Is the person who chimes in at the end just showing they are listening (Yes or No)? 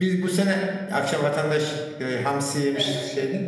Yes